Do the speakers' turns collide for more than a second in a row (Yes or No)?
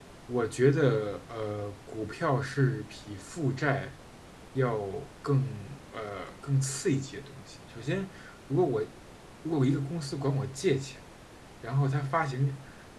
No